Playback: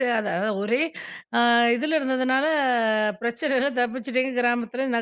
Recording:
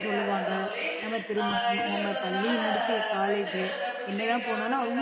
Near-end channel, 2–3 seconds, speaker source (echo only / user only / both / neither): both